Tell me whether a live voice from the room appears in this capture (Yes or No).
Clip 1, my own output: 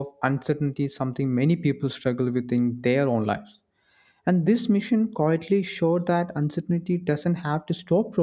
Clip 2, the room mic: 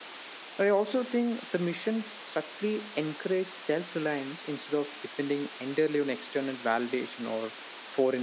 Yes